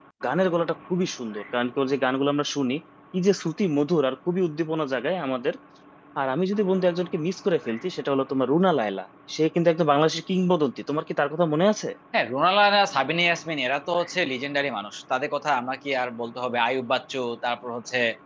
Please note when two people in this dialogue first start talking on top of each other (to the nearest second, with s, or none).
none